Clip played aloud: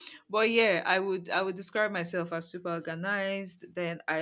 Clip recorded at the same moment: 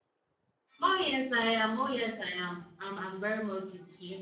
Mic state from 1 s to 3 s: user only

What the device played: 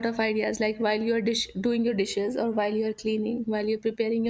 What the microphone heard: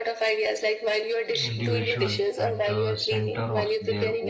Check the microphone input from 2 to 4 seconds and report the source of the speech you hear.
both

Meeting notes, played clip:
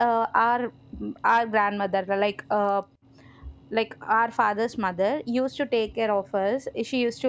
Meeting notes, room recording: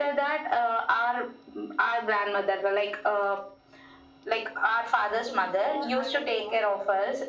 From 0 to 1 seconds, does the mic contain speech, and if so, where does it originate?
echo only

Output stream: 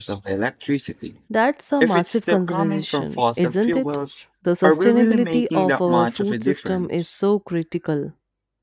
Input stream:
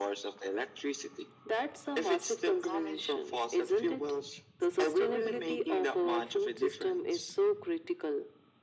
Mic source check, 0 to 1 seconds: echo only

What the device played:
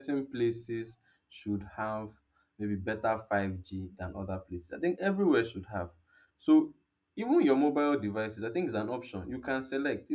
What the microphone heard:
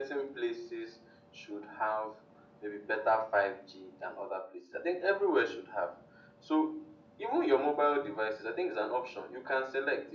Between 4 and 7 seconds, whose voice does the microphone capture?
echo only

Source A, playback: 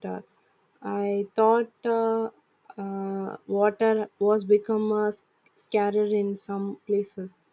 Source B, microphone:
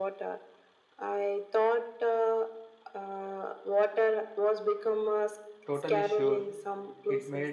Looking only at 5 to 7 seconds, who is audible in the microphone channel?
both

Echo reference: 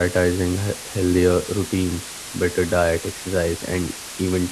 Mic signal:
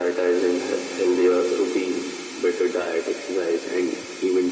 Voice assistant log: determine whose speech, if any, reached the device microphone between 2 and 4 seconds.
echo only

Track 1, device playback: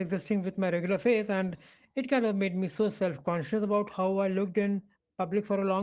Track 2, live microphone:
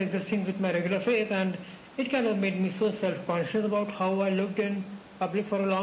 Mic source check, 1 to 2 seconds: echo only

